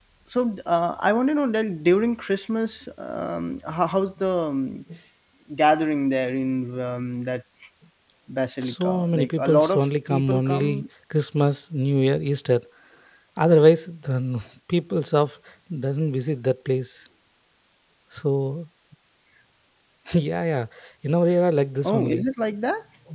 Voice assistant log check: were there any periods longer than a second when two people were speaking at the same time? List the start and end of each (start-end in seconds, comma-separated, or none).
8.6-10.8